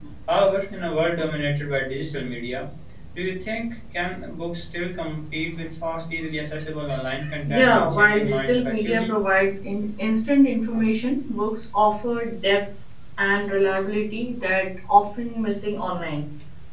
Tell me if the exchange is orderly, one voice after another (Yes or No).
No